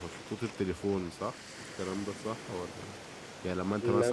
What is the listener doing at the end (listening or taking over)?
listening